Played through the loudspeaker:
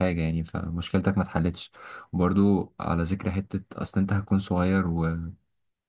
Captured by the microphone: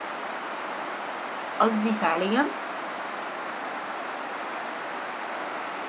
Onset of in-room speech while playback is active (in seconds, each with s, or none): 1.6 s